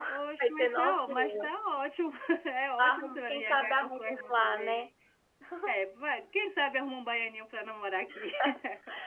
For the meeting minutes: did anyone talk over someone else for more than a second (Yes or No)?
Yes